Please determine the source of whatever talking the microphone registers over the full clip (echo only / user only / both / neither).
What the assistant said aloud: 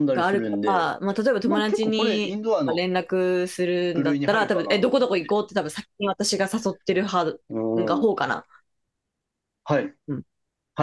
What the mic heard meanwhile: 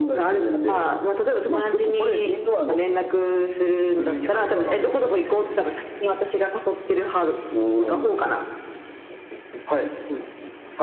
echo only